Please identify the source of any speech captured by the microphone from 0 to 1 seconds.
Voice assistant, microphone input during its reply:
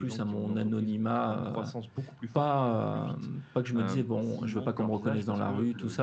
echo only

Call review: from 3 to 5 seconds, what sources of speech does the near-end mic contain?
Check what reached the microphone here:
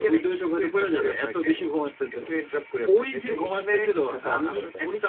both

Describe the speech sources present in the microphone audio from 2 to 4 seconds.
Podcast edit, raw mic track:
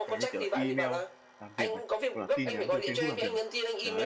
both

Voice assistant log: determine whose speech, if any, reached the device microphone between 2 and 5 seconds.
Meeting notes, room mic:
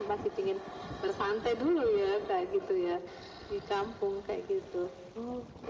echo only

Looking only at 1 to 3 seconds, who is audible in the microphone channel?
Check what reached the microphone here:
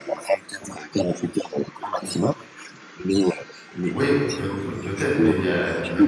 echo only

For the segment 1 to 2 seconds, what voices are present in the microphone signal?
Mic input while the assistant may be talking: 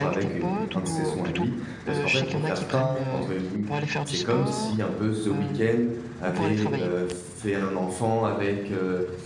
both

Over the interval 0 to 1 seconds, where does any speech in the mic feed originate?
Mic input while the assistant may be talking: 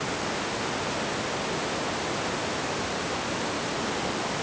neither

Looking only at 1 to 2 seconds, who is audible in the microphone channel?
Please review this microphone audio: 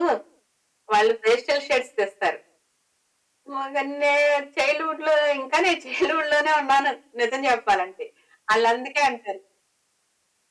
echo only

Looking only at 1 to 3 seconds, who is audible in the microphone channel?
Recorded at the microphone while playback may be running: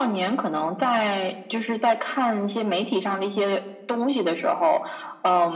echo only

